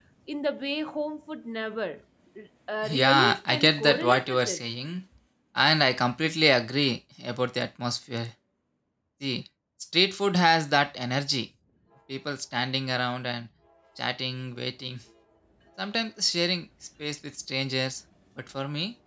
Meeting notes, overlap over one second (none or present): present